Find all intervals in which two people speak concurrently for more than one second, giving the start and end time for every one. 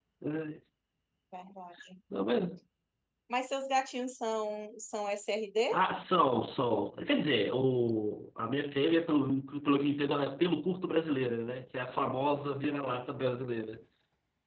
none

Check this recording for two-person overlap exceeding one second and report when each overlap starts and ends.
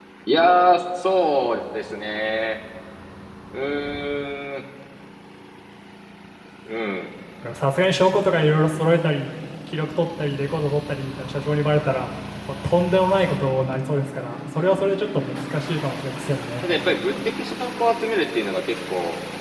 none

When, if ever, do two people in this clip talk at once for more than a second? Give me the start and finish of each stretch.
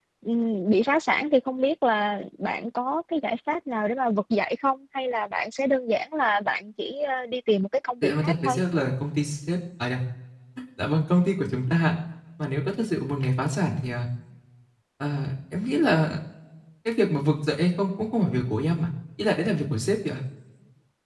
none

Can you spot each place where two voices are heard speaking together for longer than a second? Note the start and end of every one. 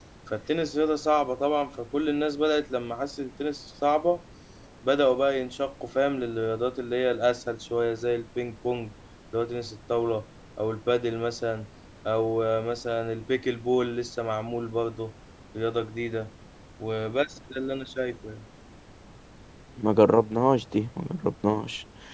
none

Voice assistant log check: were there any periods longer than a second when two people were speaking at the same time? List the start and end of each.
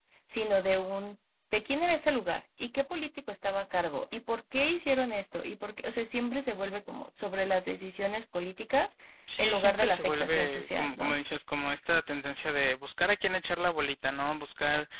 9.4-11.2

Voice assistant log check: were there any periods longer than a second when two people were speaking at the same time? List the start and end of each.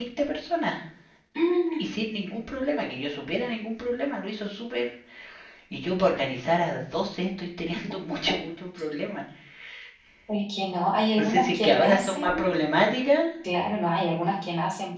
11.2-12.5

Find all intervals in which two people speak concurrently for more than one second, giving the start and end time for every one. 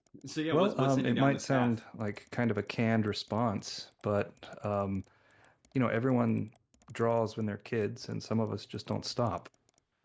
0.5-1.7

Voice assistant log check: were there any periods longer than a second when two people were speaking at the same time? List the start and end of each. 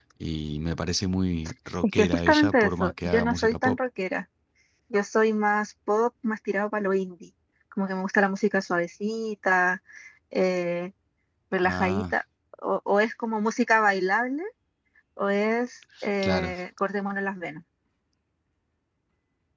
2.0-3.8

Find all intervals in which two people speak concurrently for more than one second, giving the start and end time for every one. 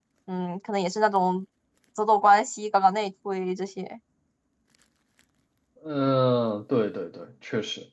none

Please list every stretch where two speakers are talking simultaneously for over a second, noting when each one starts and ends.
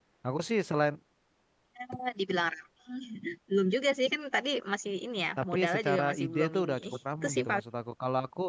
5.4-6.8

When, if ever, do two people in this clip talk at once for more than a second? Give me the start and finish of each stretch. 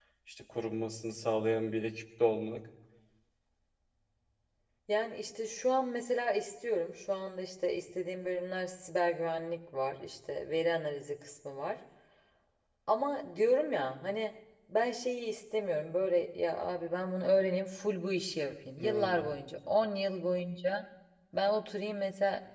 none

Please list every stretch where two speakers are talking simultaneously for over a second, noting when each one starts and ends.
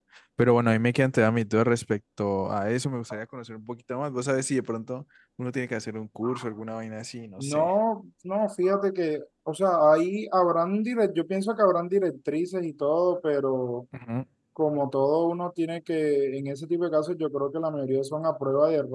none

